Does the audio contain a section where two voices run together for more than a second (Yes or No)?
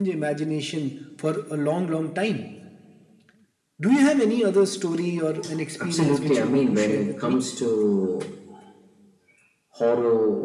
Yes